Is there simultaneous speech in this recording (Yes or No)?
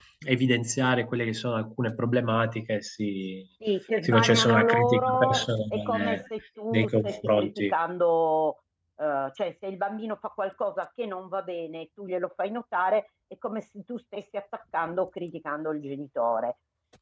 Yes